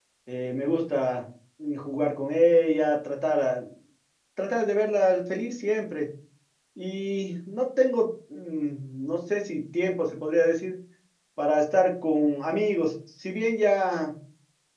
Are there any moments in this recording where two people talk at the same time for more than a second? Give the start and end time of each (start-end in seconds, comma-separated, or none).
none